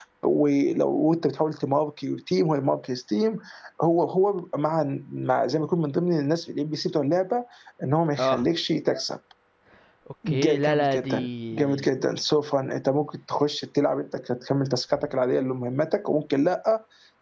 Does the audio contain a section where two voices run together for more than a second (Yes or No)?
Yes